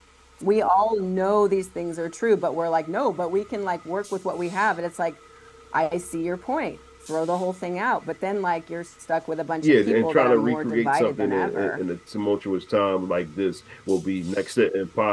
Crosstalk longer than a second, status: present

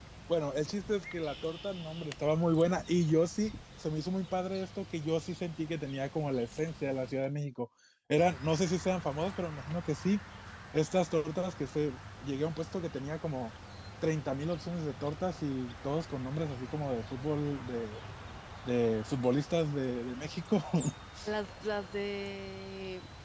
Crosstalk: none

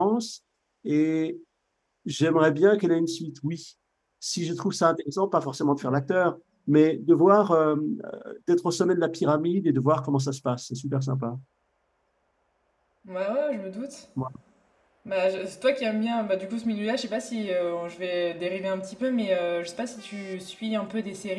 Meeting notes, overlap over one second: none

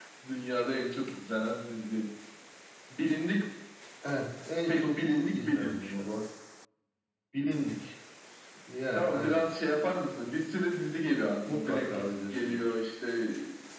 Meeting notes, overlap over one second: present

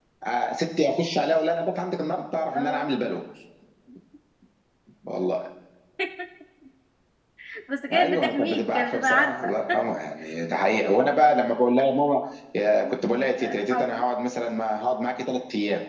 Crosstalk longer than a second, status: present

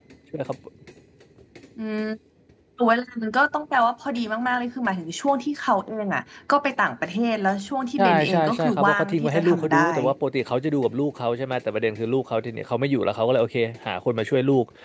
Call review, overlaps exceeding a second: present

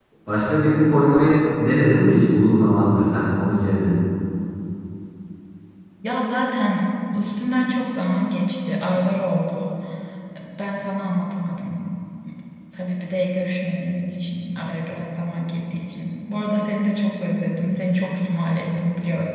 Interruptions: none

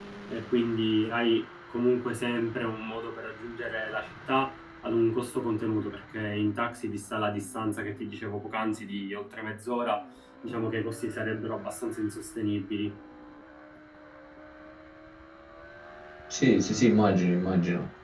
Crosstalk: none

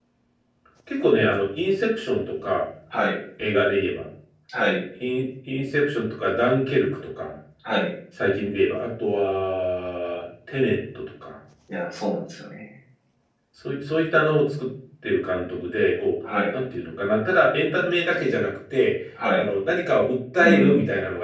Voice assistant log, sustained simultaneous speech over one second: none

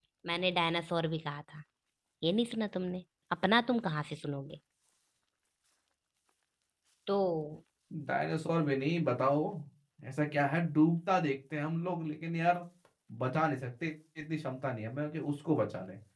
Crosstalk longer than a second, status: none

